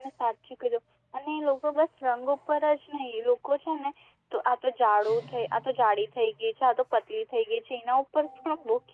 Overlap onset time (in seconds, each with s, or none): none